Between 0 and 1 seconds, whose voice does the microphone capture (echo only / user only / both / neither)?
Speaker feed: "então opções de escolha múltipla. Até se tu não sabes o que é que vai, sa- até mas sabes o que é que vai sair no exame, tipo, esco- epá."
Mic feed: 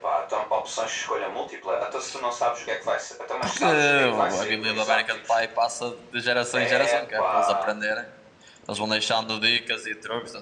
echo only